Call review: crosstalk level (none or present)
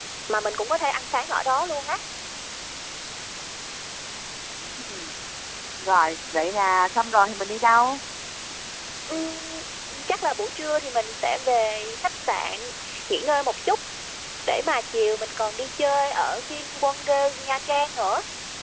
none